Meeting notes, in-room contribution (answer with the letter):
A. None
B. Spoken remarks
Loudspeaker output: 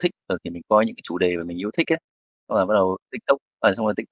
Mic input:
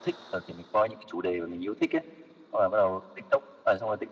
A